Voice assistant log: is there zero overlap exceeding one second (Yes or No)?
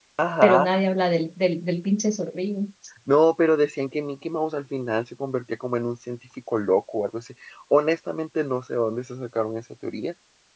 Yes